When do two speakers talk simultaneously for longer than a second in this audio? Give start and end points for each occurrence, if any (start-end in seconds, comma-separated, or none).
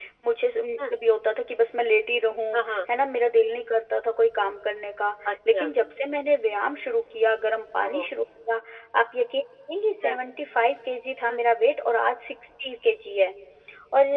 none